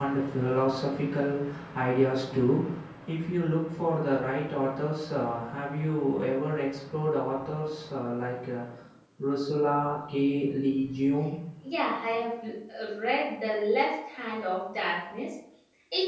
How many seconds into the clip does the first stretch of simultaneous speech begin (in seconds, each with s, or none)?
none